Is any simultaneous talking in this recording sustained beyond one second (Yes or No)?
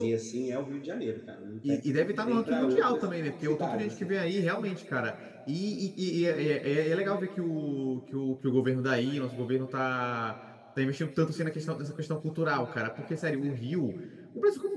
Yes